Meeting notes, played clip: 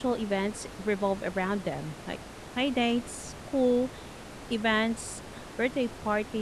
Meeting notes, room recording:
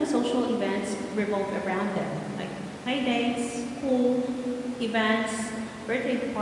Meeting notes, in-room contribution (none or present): none